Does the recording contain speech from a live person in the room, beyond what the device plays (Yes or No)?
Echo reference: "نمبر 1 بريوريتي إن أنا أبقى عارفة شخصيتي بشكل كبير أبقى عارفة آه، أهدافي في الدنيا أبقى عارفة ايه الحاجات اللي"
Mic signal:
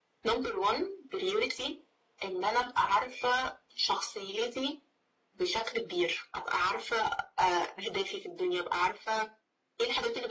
No